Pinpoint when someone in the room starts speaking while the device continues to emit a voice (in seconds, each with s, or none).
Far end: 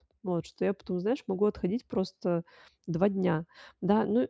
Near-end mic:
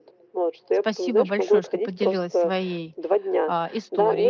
0.7 s